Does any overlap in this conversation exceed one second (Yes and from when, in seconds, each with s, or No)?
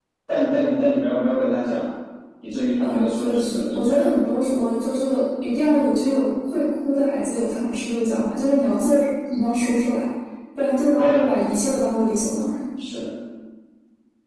Yes, from 2.8 s